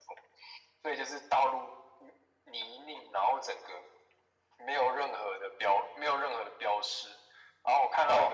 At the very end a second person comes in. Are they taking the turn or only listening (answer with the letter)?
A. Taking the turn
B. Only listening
B